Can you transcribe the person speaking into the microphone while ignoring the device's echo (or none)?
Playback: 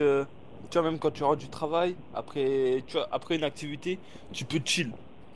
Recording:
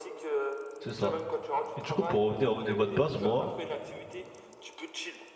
c'est ça. Et du coup, pour revenir au débat de base, moi,